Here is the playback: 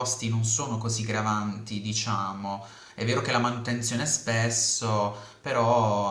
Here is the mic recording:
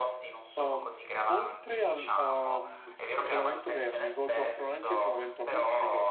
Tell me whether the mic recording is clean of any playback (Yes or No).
No